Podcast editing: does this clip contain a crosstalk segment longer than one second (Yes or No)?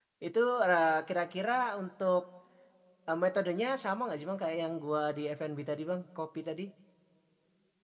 No